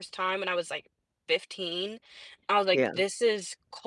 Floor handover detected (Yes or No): No